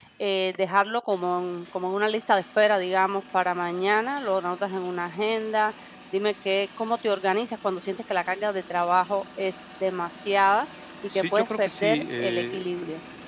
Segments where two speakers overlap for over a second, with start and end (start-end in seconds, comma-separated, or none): 11.2-12.7